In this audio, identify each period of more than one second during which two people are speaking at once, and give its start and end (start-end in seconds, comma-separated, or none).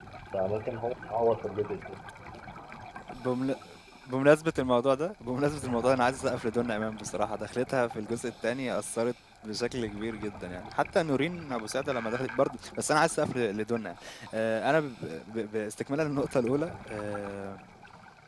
none